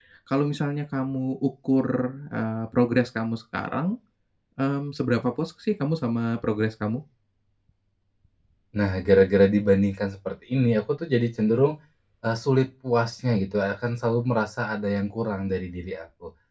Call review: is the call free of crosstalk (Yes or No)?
Yes